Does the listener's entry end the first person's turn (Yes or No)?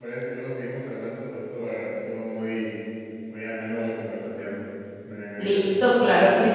Yes